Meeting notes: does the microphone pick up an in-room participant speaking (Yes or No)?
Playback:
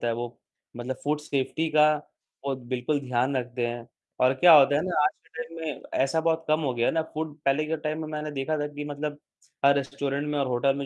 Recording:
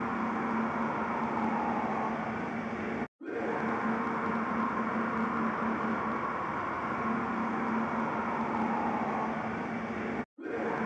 No